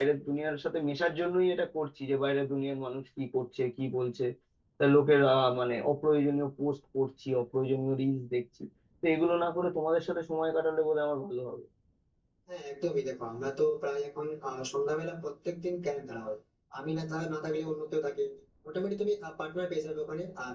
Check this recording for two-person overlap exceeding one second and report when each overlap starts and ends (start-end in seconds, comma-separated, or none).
none